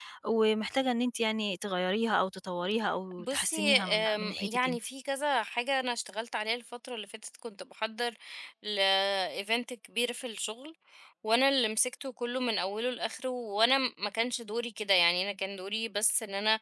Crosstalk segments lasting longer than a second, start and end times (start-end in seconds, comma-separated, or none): 3.2-4.8